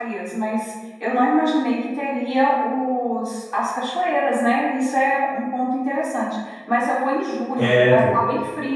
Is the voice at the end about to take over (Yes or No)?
No